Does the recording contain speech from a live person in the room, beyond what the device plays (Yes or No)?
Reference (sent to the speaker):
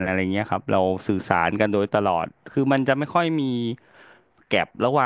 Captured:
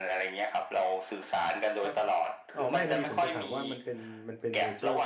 Yes